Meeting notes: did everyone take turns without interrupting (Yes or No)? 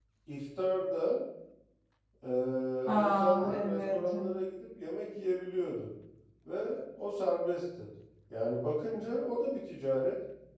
No